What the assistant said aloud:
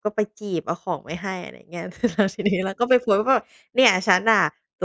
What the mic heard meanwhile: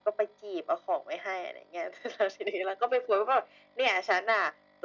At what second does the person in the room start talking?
none

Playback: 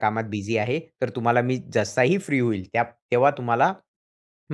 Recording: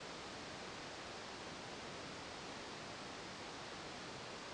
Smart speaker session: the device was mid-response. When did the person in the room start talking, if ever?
none

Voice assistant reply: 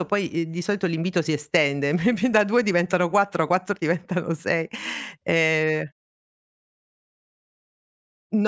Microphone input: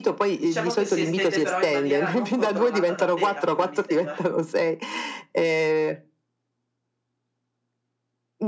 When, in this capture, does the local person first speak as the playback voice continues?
0.4 s

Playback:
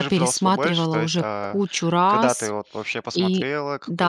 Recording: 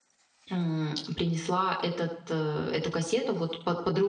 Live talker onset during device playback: 0.5 s

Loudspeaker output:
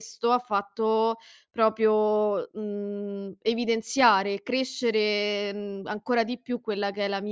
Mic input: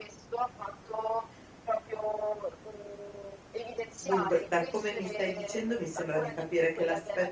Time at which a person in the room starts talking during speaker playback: 4.0 s

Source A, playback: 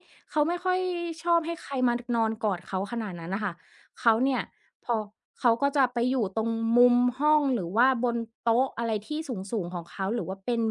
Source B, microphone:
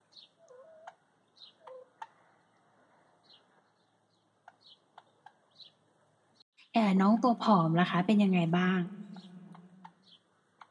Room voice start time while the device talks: 6.7 s

